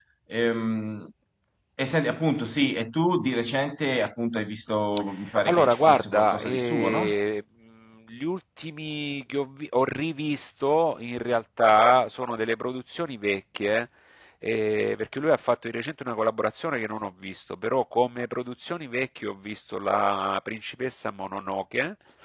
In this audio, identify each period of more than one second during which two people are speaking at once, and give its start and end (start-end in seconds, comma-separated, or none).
5.5-7.1